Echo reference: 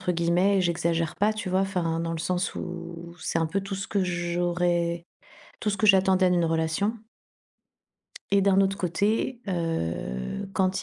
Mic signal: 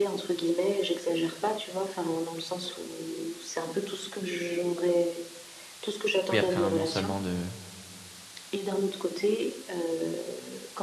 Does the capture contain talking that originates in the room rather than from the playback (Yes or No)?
Yes